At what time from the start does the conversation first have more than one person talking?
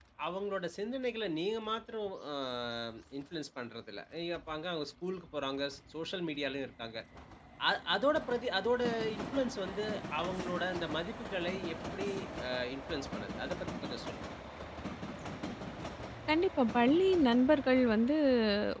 none

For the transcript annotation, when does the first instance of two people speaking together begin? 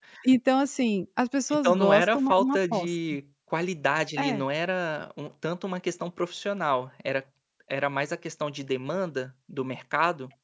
1.5 s

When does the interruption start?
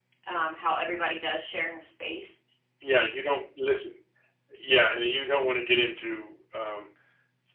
none

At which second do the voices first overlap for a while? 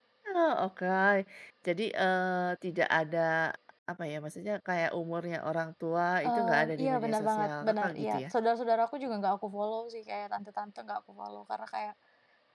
6.2 s

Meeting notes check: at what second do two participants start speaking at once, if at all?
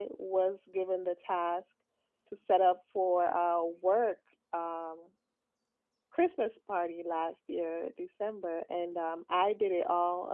none

